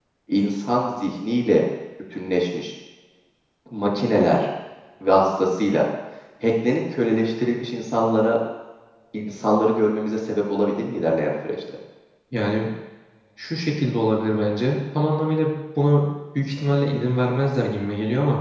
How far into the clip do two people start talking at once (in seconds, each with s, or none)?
none